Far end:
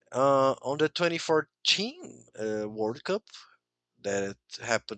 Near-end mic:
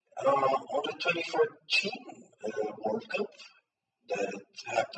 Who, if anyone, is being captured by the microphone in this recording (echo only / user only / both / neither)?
echo only